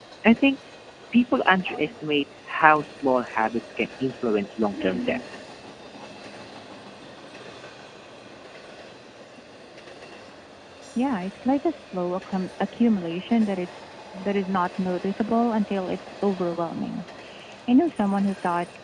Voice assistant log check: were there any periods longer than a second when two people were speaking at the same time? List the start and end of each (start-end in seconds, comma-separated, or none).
none